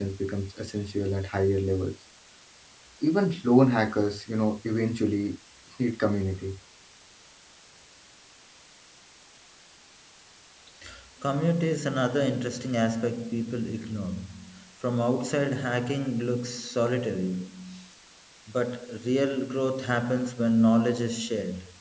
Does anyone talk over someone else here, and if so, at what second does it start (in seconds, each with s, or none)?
none